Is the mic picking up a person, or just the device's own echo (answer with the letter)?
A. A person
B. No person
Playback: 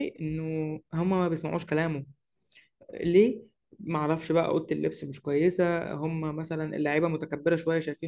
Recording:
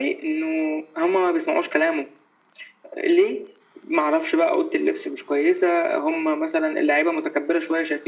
B